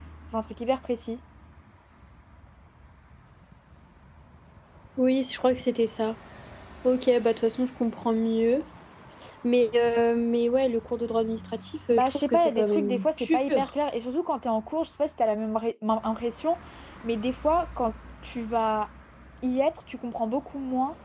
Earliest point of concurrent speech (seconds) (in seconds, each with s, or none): 11.9 s